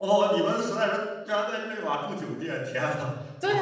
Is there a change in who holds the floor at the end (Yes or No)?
Yes